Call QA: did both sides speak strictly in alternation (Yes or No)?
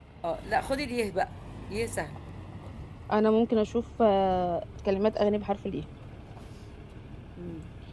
Yes